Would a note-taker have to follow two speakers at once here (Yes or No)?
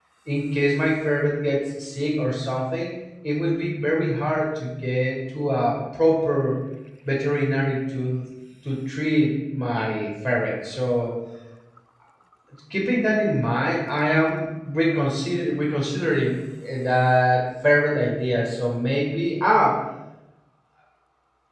No